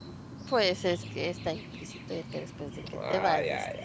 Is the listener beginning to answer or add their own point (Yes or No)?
Yes